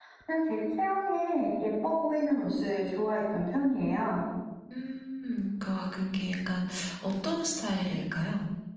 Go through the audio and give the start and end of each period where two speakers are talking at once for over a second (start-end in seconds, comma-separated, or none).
none